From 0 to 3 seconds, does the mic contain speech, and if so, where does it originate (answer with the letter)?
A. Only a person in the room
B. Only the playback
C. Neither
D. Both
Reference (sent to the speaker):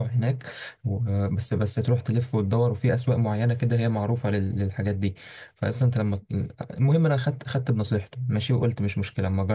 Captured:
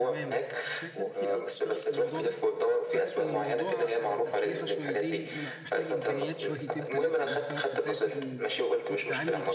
D